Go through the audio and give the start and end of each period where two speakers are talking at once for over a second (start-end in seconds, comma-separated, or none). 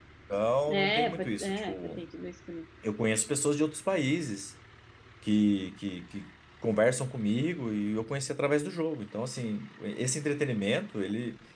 0.7-2.0